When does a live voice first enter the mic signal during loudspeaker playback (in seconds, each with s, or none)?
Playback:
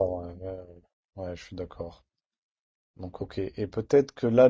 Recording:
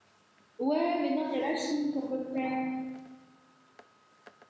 0.6 s